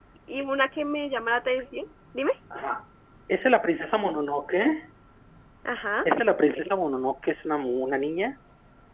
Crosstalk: none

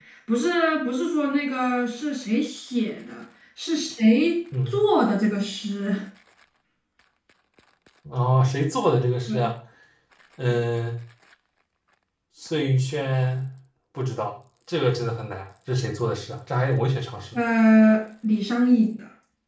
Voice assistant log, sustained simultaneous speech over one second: none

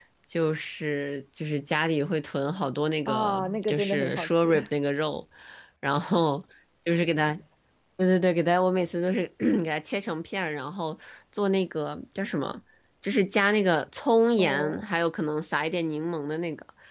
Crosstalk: present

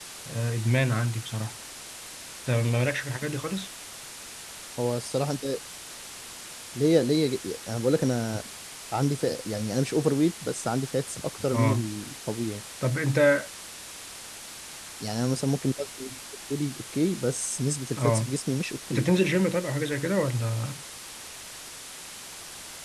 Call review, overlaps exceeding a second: none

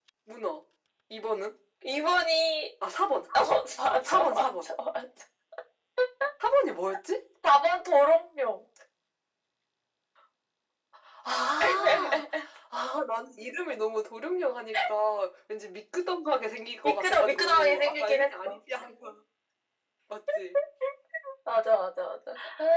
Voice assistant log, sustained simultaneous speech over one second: present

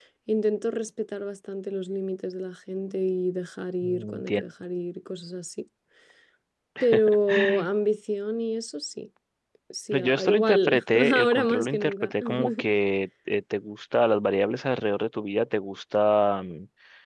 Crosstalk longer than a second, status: present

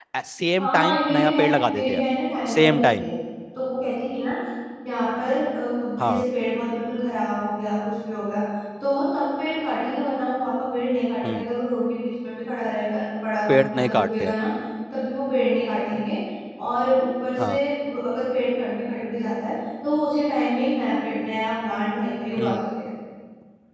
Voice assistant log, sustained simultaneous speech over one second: present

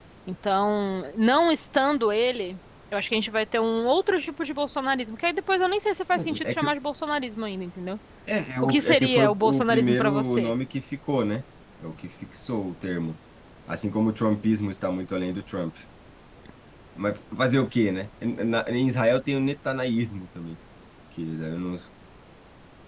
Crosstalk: present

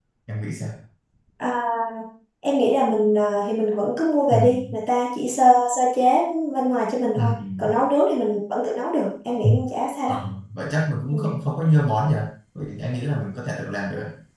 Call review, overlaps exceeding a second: none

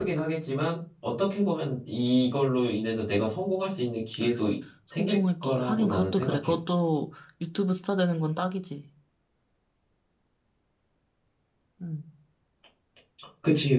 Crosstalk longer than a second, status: present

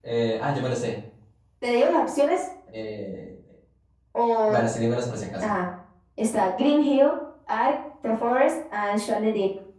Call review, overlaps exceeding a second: none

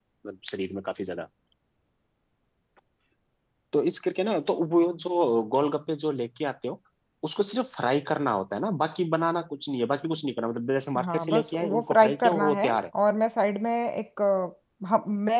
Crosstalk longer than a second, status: present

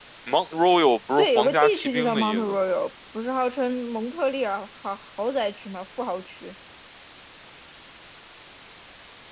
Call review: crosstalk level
present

